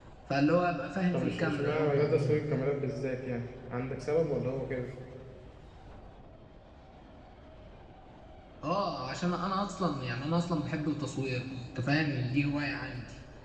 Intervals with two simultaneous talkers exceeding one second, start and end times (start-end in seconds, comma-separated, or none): 1.1-2.4